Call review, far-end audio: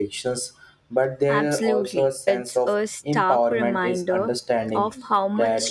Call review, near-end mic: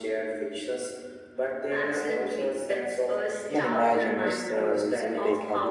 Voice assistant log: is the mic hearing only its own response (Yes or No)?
No